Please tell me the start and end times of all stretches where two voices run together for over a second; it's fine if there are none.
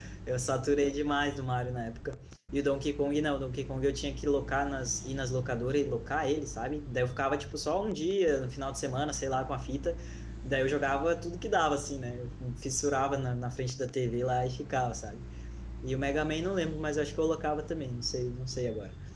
none

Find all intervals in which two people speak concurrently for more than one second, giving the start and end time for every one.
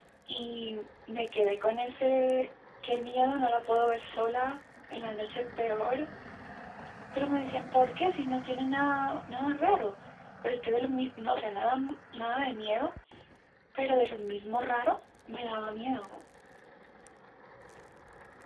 none

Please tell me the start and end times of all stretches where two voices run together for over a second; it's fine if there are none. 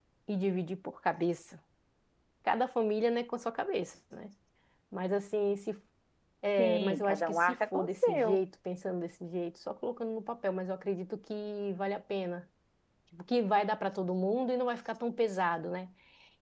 6.6-8.4

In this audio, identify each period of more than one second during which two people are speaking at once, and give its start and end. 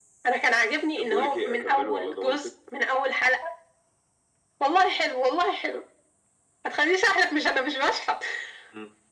1.0-2.5

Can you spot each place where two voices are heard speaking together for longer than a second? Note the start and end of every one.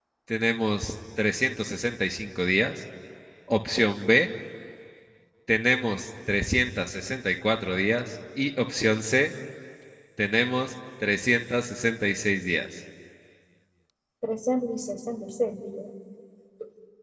none

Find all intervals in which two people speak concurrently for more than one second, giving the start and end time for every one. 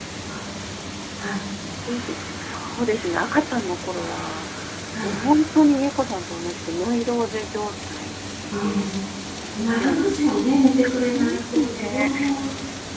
10.8-12.1

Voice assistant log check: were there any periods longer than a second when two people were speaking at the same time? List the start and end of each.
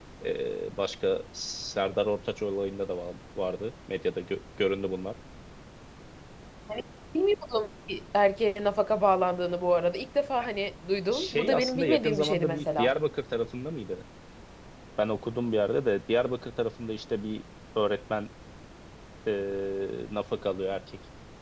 11.1-12.9

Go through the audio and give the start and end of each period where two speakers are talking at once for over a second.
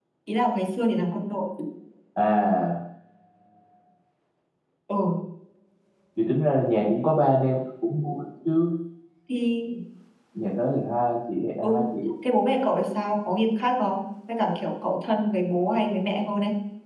none

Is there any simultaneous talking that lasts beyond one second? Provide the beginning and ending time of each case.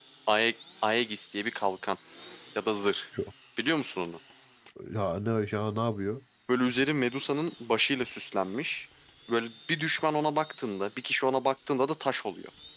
none

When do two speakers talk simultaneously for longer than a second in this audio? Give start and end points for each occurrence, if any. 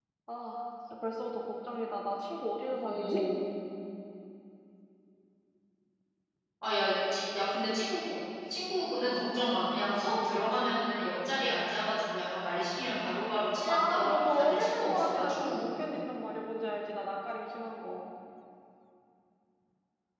13.7-15.6

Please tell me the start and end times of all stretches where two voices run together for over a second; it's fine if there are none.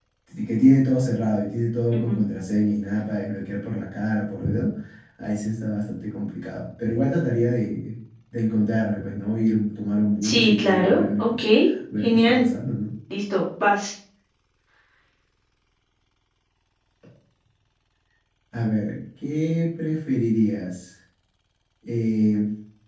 10.2-11.4

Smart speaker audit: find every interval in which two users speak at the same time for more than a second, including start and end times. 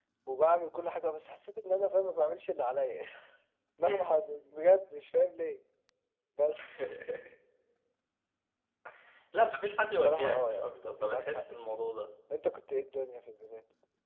9.9-11.8

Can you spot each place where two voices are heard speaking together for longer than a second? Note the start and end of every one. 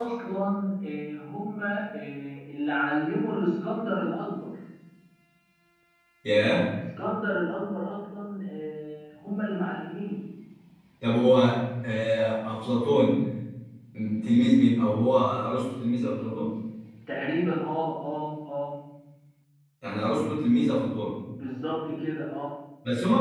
none

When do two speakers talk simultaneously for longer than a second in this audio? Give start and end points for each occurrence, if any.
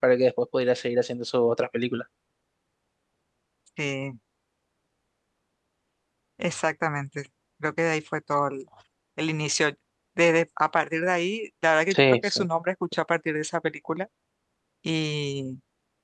none

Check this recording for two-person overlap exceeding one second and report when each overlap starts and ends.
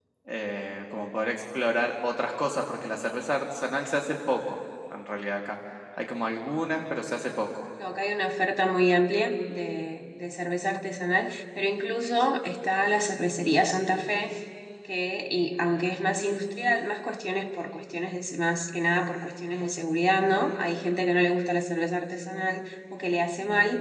none

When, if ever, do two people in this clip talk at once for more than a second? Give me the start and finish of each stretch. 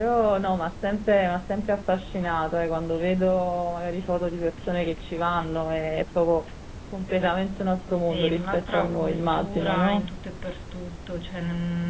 8.1-10.0

